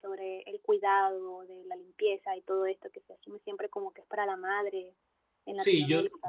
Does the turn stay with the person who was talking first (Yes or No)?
No